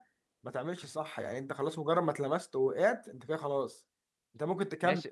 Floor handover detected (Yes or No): No